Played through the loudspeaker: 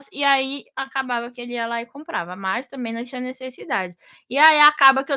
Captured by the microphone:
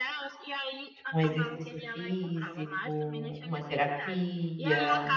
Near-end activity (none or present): present